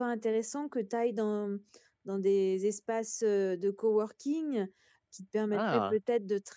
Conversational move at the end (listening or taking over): listening